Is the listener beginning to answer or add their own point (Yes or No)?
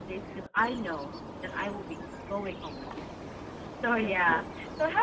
No